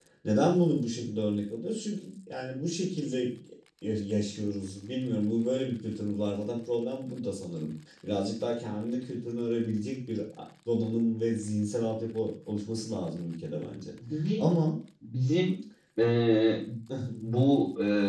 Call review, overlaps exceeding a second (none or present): none